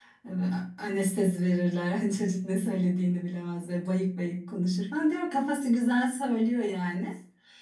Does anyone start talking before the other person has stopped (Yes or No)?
No